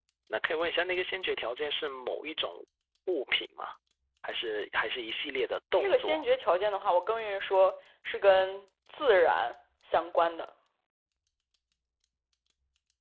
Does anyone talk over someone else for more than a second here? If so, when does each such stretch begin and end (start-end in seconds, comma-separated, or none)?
none